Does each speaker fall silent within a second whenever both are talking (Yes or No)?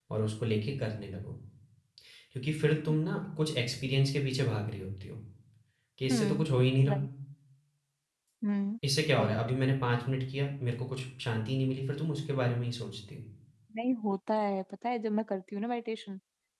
Yes